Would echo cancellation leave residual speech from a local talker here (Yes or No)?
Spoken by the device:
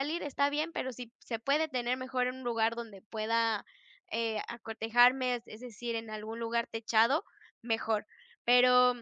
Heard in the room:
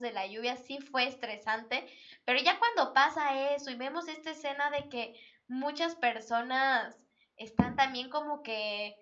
Yes